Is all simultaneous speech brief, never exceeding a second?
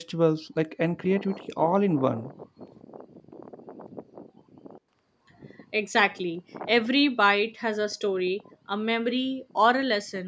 Yes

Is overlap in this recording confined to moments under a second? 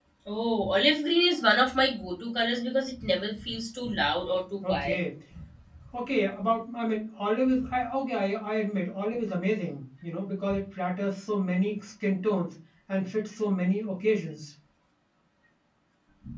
Yes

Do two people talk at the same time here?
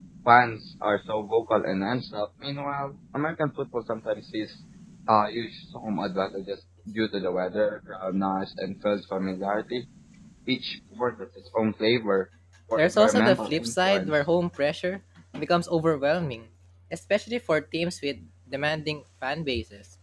Yes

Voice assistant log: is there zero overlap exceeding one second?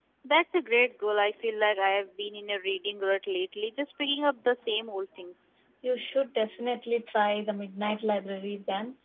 Yes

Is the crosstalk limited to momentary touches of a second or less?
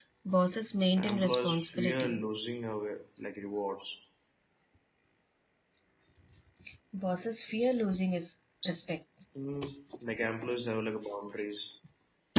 No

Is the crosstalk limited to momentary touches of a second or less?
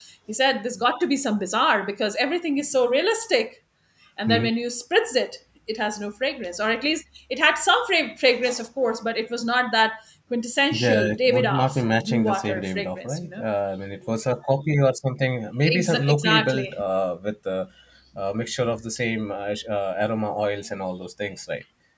No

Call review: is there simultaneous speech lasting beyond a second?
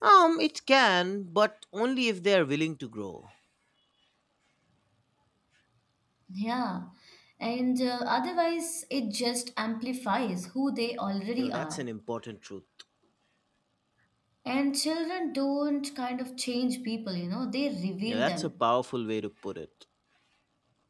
No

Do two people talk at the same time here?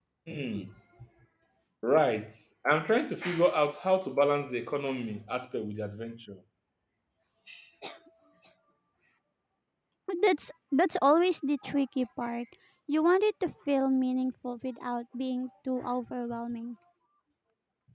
No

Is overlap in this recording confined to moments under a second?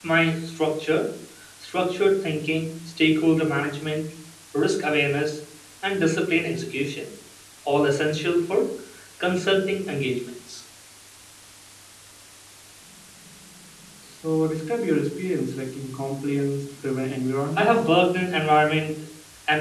Yes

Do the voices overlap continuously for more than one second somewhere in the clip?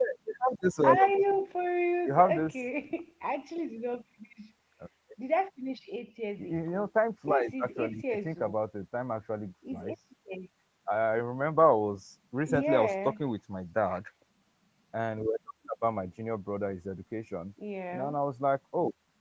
Yes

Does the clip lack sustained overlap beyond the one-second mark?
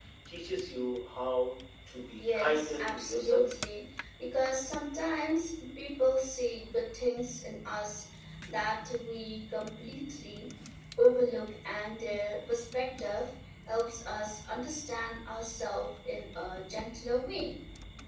No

